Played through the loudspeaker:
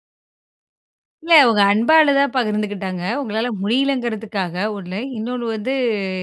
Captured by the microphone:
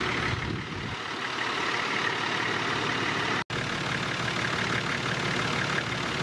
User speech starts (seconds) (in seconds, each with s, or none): none